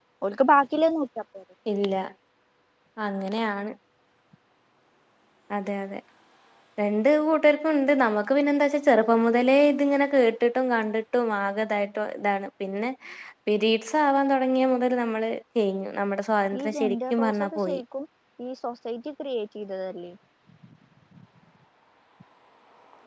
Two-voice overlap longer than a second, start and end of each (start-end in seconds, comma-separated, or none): 16.6-17.8